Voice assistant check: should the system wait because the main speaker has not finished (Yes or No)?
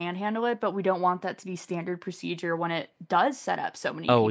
No